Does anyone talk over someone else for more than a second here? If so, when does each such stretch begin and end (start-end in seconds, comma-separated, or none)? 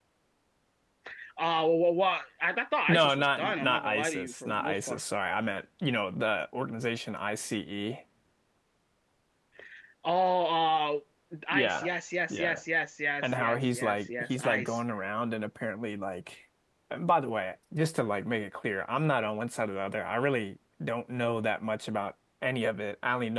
2.9-5.0, 13.2-14.8